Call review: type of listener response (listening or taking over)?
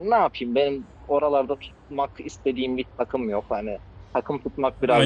taking over